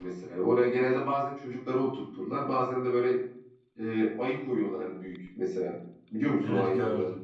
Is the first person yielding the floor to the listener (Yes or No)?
Yes